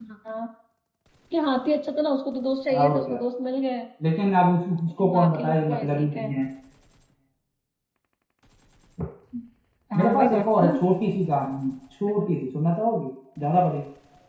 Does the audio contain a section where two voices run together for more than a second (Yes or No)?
Yes